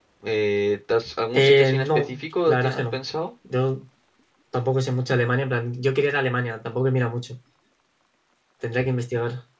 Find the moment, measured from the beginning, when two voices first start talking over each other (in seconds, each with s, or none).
1.3 s